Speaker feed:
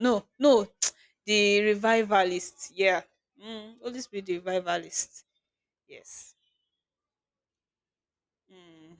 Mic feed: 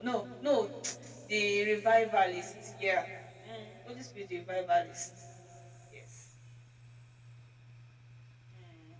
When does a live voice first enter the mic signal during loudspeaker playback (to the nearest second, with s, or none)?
none